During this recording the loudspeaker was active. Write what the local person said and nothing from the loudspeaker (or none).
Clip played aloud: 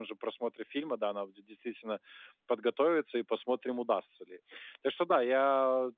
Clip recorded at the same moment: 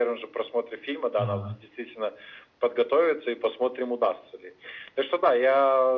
Ага.